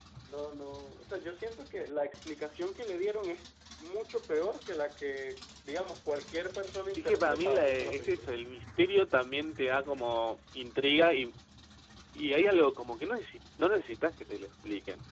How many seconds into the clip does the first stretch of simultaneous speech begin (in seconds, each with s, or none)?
7.0 s